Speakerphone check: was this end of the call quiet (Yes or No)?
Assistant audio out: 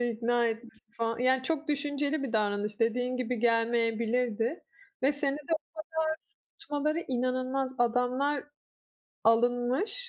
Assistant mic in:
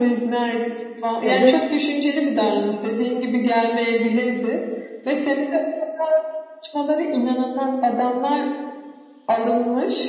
No